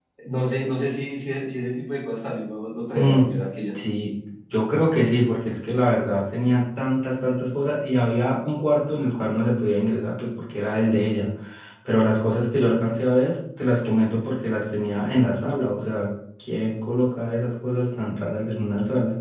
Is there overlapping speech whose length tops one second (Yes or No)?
No